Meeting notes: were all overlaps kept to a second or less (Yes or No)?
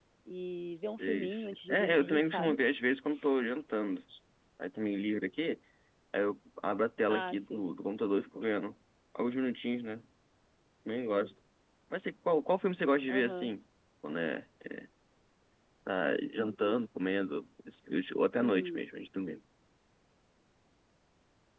No